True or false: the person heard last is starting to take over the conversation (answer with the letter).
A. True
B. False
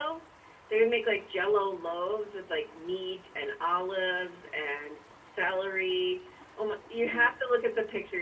B